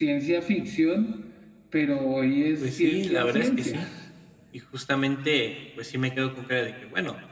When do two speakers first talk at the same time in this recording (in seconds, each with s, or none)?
2.6 s